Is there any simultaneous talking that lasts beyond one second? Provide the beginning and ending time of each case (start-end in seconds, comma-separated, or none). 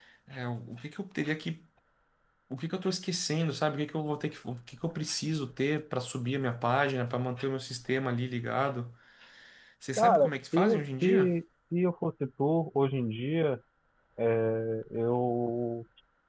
10.0-11.3